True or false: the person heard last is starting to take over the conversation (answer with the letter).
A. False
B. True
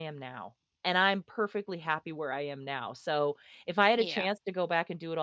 A